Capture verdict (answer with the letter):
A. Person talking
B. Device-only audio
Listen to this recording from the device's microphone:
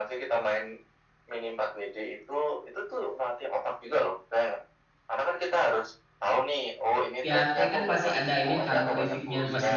A